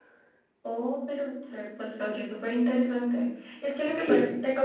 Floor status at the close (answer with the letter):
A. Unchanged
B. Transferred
A